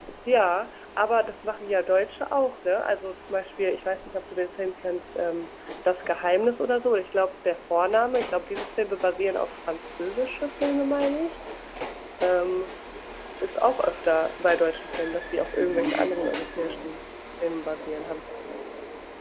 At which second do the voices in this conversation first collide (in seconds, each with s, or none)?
15.2 s